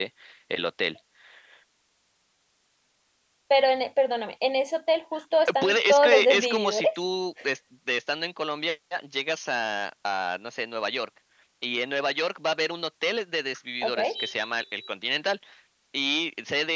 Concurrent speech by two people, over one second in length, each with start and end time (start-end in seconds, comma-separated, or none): 5.6-7.0